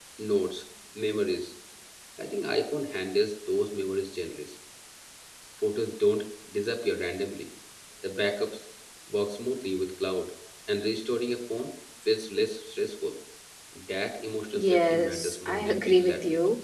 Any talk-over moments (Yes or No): Yes